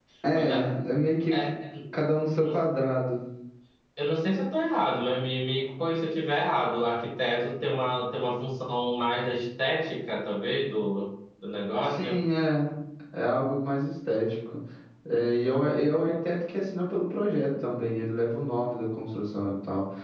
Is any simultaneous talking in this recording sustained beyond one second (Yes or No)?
No